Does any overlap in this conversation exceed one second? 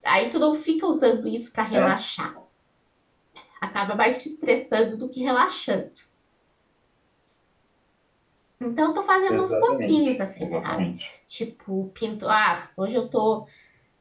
Yes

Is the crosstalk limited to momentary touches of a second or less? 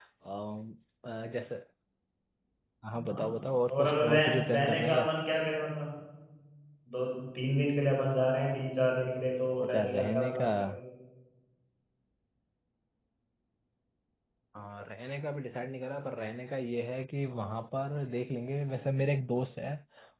No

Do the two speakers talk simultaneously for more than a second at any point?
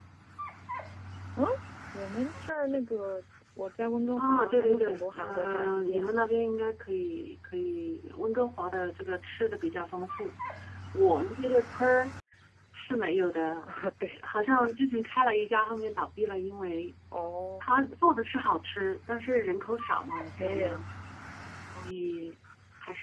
Yes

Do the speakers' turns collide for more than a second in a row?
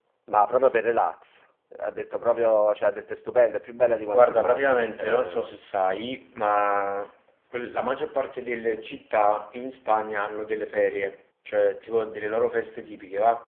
Yes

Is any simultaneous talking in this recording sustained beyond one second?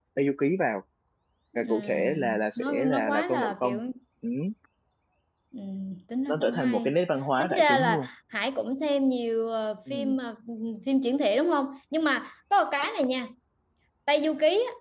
Yes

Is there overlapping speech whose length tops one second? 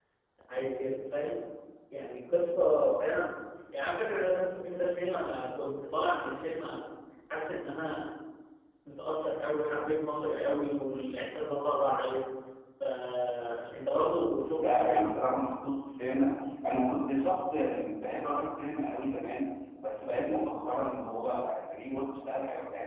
No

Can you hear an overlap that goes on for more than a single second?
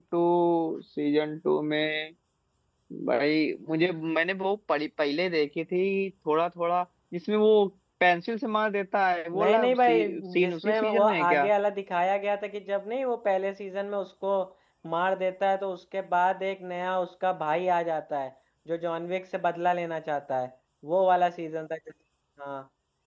Yes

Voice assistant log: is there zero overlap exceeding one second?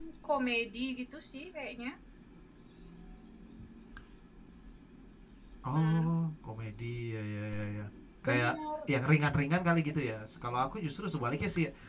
Yes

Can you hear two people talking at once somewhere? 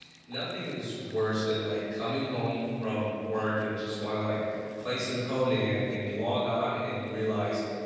No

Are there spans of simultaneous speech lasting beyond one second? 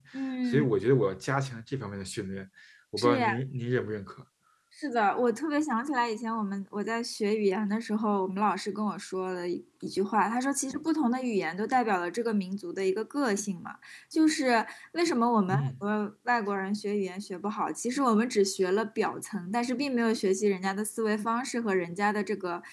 No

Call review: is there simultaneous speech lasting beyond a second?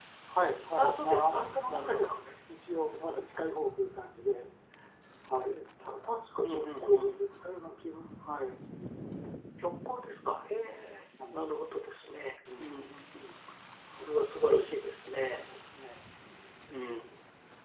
Yes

